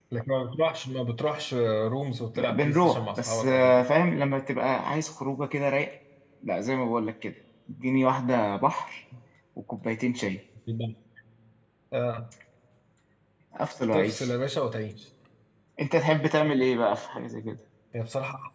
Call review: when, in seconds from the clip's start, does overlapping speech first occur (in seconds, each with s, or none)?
2.4 s